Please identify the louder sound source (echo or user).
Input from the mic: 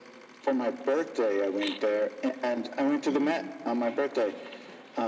echo